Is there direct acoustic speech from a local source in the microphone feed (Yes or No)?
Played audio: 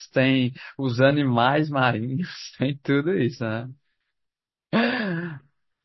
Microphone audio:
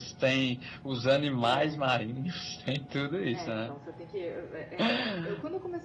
Yes